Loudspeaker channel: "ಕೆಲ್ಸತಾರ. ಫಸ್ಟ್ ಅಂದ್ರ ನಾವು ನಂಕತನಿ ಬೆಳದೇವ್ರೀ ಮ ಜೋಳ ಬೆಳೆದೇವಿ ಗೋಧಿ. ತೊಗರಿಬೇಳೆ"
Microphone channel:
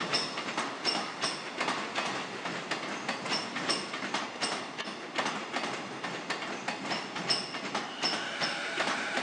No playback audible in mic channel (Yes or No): Yes